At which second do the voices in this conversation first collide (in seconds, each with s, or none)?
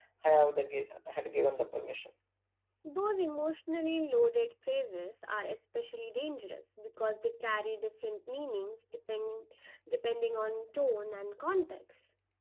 none